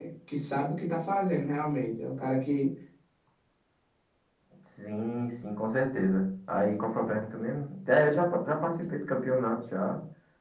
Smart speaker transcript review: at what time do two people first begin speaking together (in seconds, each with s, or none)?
none